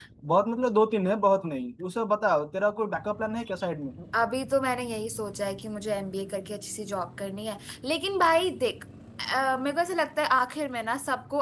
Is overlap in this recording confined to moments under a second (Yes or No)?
Yes